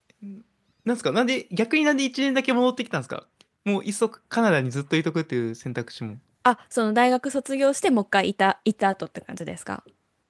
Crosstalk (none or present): none